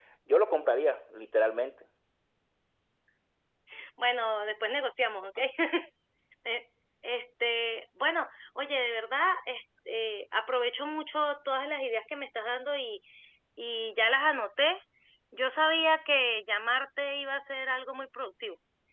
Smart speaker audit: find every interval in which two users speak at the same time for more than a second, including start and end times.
none

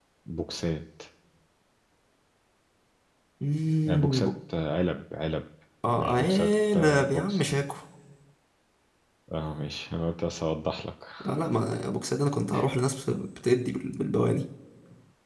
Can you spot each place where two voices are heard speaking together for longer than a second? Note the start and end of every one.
6.0-7.4

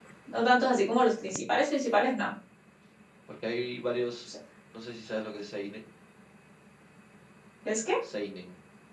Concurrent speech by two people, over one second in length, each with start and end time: none

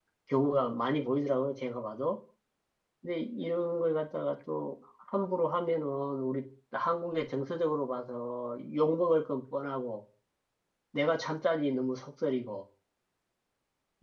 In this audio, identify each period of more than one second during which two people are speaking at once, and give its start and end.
none

